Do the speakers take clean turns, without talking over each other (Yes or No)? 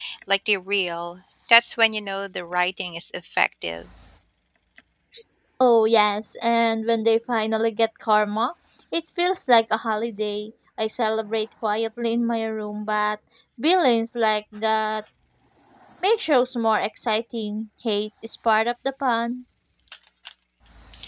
Yes